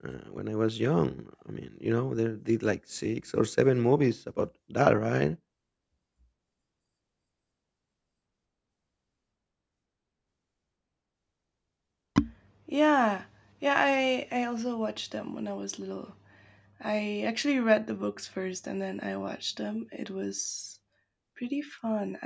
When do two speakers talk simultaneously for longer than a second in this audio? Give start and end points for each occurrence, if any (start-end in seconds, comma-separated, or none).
none